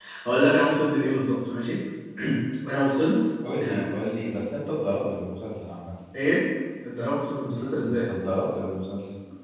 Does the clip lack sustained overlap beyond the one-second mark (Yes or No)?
Yes